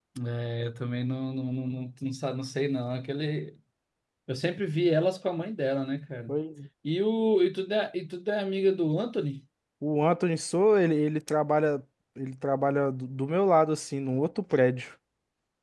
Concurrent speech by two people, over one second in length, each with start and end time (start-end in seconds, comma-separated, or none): none